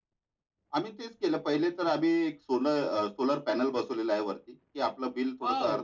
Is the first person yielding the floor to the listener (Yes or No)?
Yes